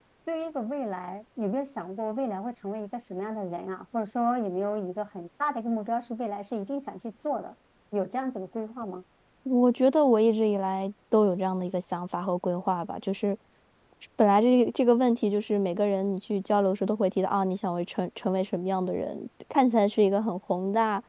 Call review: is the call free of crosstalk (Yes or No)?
Yes